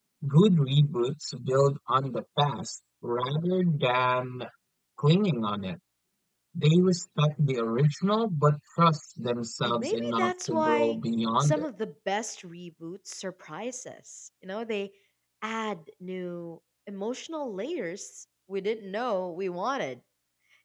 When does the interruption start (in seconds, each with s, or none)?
9.6 s